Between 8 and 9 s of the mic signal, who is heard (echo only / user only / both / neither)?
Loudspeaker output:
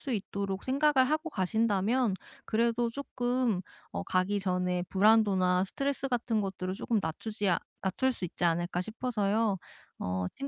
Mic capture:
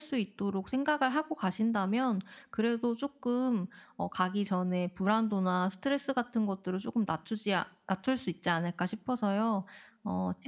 echo only